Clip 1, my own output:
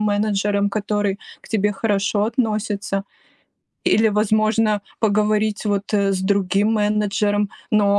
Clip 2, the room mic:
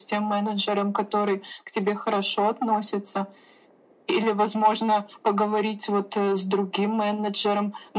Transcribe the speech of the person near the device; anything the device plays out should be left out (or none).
none